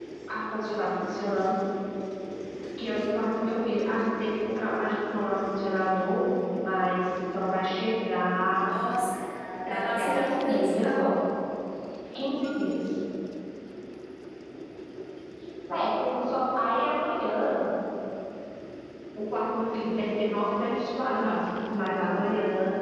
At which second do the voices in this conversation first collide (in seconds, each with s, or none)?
9.6 s